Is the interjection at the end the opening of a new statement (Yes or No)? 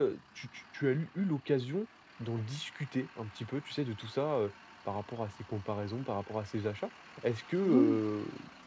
No